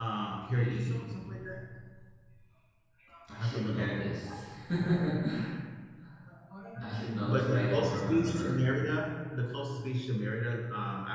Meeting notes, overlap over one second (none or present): present